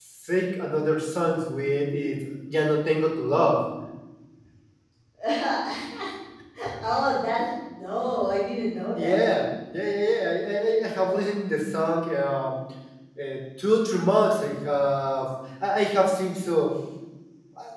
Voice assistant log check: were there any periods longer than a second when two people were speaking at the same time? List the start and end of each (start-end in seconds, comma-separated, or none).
none